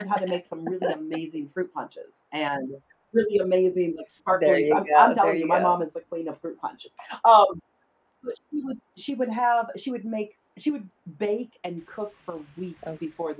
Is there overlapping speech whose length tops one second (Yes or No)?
Yes